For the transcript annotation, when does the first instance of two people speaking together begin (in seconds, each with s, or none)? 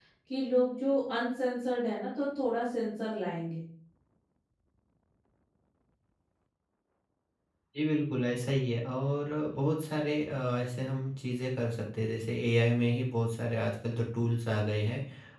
none